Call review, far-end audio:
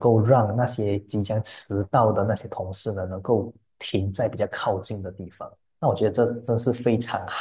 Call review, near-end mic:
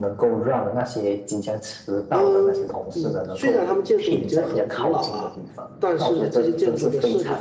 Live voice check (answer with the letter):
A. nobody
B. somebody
B